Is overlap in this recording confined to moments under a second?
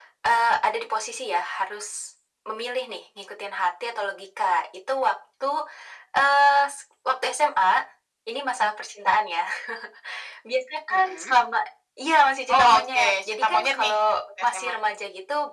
No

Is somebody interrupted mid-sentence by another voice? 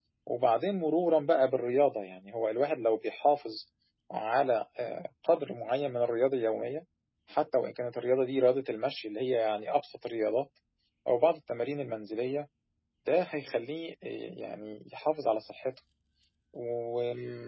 No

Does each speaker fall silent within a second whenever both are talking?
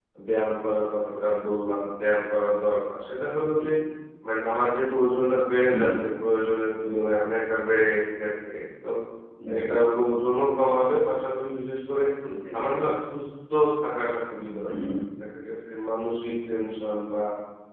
Yes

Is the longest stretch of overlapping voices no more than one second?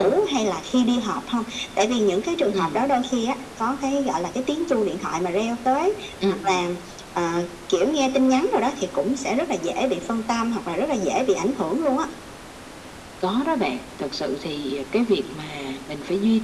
Yes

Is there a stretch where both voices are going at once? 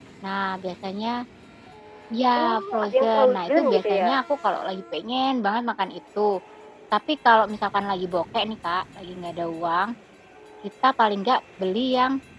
Yes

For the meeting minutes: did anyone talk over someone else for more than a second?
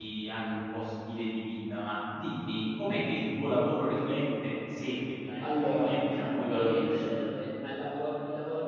Yes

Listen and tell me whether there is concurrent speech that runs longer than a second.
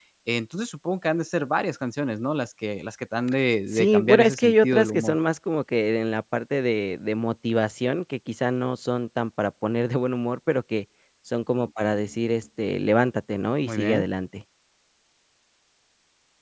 Yes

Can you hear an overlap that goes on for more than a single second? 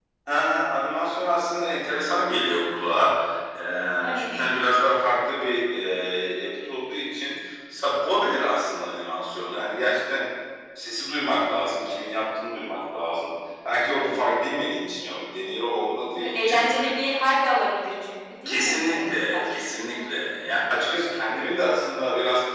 Yes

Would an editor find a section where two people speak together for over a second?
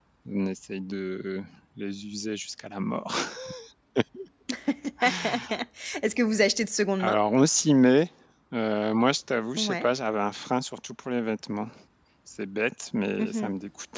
No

